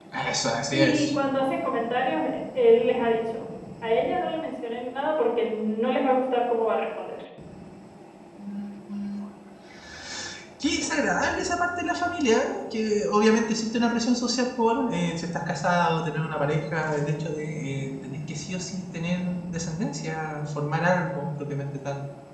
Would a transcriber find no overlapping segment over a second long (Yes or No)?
Yes